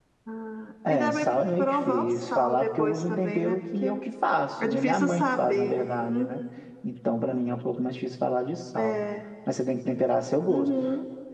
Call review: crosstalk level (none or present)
present